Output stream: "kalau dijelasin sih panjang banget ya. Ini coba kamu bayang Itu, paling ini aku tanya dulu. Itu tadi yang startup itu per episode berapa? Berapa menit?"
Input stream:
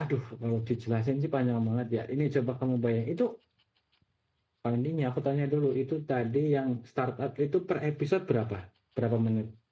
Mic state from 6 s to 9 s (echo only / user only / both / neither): echo only